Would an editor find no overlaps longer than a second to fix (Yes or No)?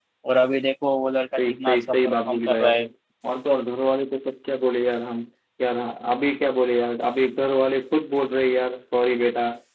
No